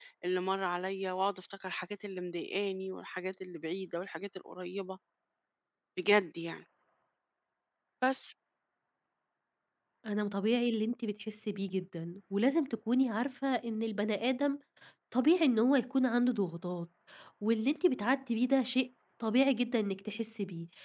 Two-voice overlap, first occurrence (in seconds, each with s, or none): none